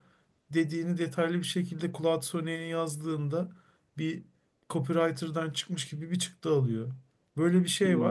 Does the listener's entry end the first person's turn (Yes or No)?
No